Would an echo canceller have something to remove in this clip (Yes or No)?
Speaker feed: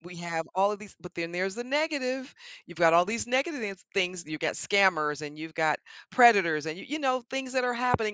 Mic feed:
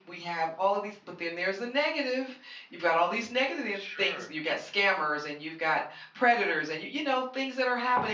Yes